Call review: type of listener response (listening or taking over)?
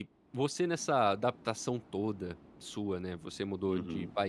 listening